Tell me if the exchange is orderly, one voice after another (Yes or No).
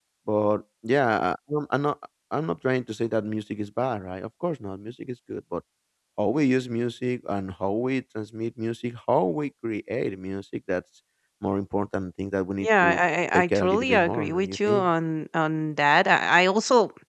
No